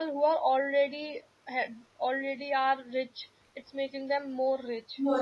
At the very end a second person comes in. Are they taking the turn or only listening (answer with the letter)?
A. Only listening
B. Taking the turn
B